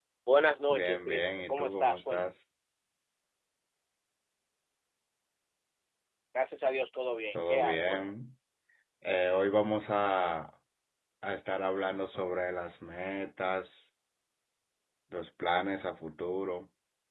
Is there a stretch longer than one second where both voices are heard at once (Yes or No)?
Yes